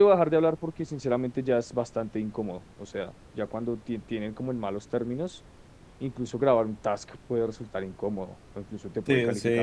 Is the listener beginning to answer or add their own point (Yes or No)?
Yes